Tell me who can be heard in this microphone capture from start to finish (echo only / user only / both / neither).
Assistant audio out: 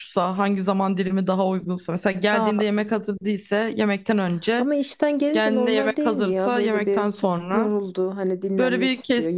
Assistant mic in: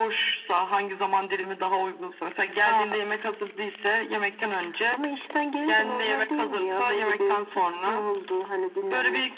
echo only